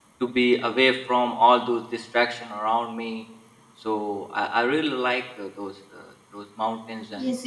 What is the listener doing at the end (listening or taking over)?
taking over